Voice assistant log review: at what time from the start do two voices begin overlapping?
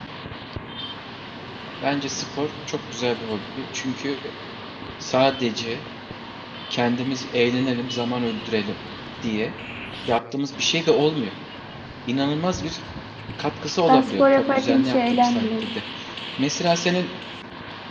14 s

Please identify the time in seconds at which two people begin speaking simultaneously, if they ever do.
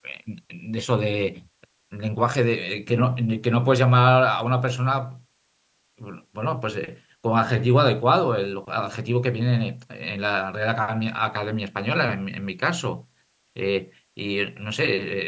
none

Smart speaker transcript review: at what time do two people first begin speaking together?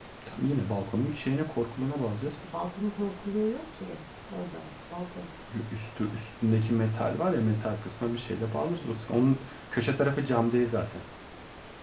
none

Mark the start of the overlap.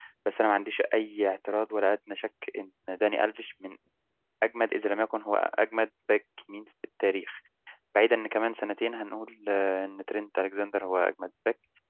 none

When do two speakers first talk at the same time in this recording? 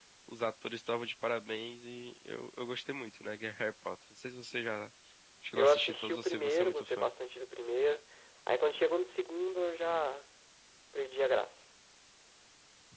6 s

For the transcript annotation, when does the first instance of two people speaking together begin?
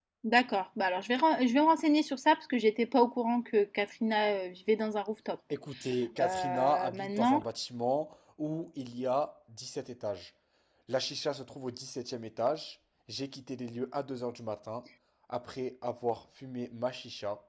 6 s

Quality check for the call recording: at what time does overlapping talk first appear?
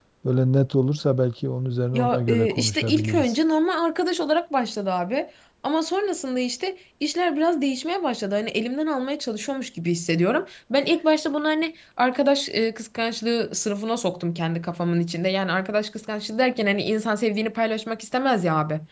2 s

